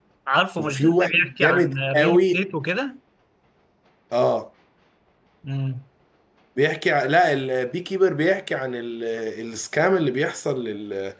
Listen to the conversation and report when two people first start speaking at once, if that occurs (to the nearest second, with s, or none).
1 s